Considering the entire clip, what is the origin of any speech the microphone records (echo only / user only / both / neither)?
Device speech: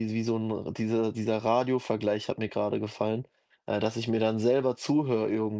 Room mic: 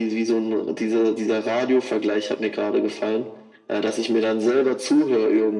echo only